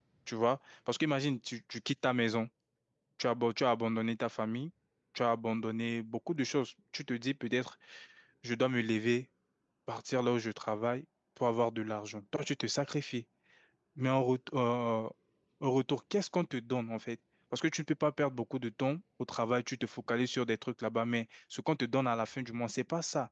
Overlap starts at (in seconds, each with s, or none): none